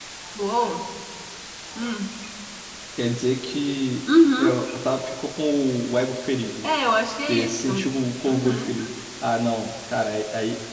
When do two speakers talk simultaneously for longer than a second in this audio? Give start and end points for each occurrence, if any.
none

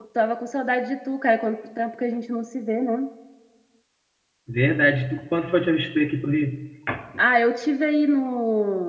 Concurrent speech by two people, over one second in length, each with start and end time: none

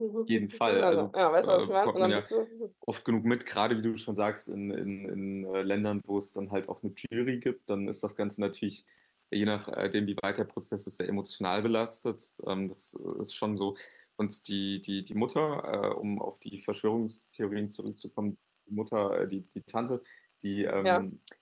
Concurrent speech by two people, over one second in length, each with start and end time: 0.8-2.3

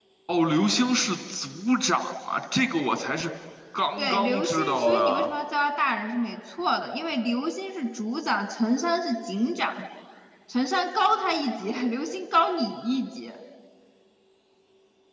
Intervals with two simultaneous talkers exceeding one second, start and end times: 4.0-5.3

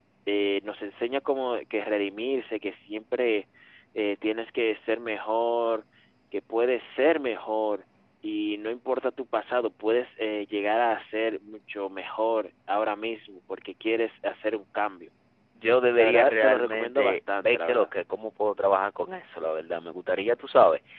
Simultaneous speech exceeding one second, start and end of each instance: 16.0-17.9

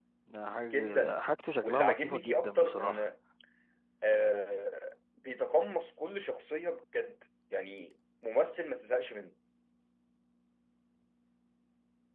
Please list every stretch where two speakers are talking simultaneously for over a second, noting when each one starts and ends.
1.6-3.1

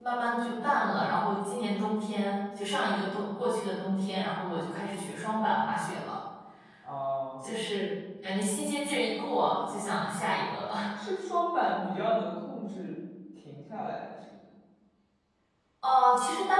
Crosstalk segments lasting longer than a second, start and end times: none

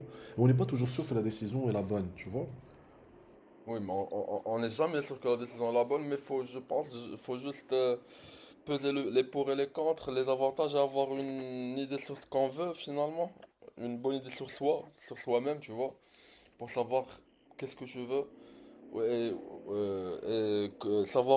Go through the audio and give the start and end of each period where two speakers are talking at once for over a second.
none

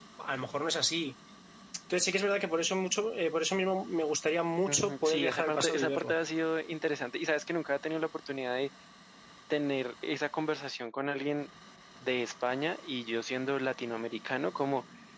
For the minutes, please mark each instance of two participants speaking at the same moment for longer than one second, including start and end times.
4.7-6.1

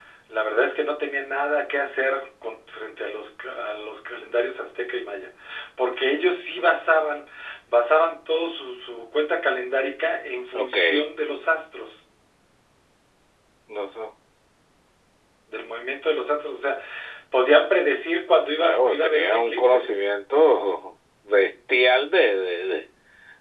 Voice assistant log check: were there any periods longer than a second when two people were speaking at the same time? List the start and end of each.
18.6-19.9

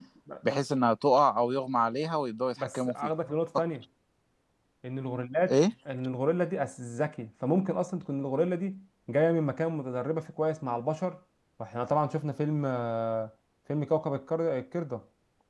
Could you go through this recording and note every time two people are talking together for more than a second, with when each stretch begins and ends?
none

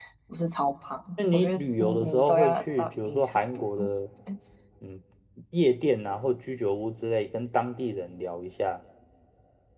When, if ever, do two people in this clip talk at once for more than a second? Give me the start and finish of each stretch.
1.3-3.9

